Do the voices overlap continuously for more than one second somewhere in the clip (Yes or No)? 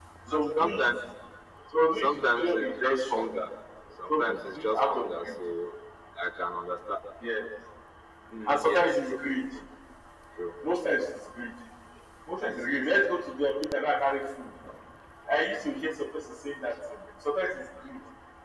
Yes